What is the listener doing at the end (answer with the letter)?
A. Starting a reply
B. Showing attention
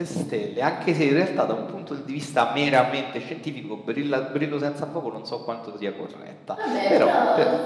A